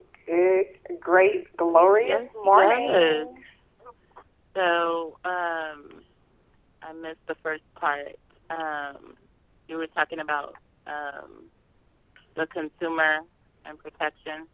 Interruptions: present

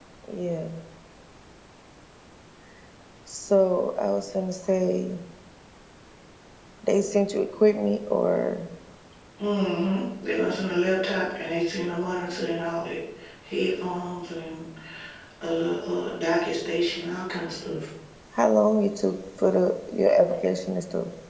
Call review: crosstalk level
none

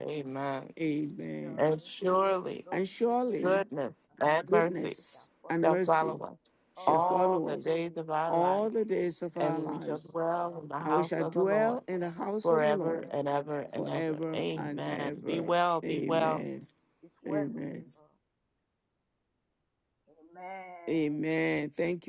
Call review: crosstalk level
present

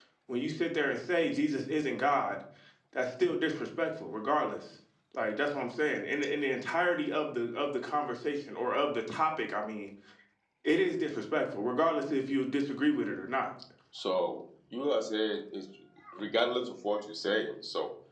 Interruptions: none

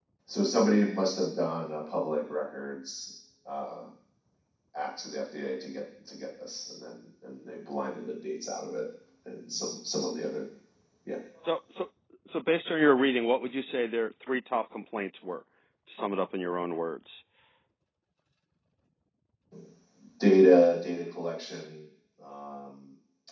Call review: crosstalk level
none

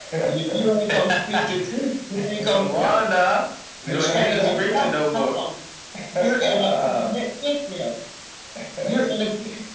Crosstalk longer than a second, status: present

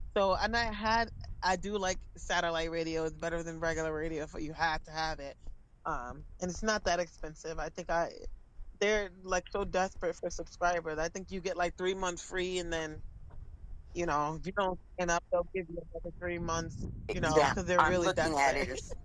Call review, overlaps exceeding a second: present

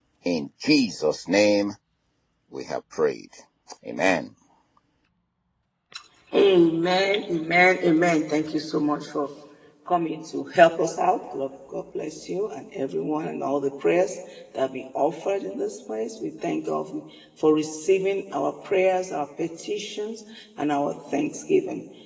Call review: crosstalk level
none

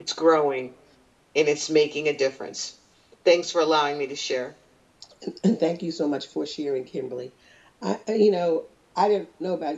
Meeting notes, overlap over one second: none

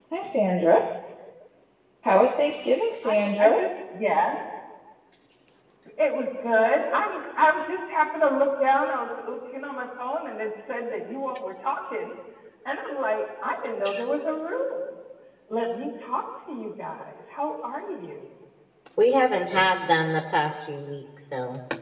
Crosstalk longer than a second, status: none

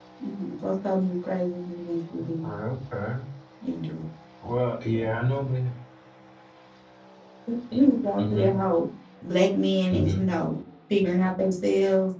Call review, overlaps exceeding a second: none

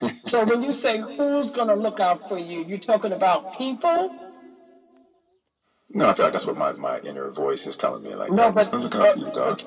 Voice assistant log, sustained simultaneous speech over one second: present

